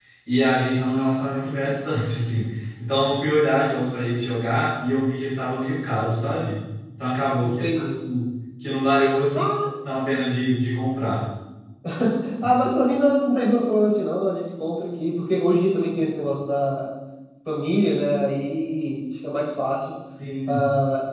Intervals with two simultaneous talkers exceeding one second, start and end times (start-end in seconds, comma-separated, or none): none